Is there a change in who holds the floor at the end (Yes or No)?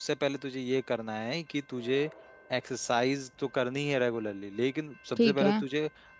No